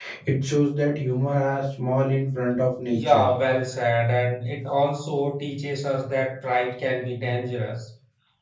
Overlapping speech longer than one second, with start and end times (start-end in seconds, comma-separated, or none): none